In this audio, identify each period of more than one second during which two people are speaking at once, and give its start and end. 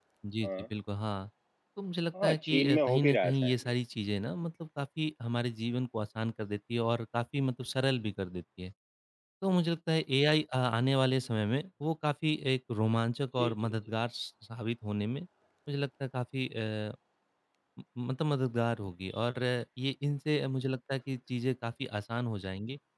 2.2-3.5

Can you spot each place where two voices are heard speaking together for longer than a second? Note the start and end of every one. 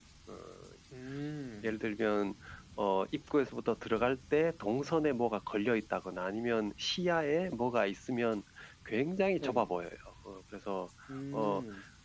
none

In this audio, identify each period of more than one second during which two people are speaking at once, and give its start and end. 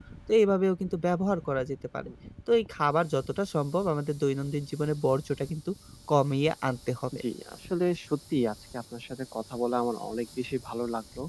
none

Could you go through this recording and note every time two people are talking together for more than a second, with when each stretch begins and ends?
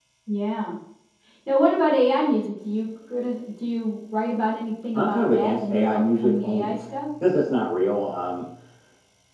4.9-6.8

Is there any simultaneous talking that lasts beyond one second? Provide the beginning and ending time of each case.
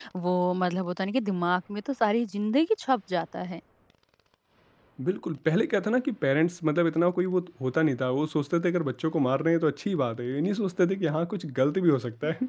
none

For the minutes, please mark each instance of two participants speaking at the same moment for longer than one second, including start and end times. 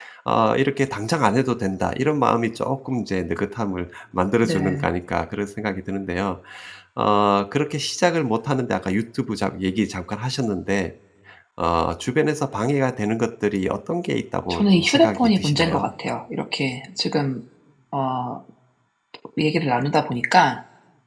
14.5-15.9

